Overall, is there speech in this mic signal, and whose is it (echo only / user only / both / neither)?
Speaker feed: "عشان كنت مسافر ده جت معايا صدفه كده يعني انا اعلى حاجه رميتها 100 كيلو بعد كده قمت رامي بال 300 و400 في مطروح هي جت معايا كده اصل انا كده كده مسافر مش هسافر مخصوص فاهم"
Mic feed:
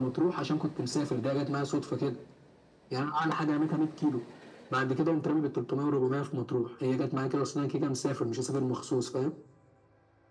echo only